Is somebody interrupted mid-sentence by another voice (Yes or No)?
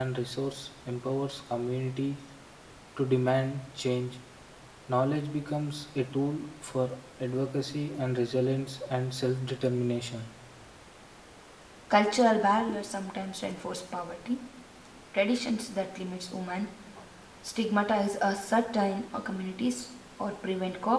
No